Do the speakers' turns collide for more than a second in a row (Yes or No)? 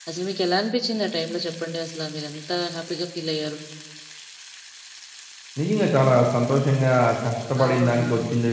No